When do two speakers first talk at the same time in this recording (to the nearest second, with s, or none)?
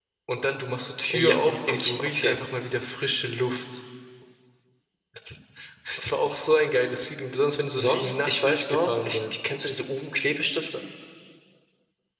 1 s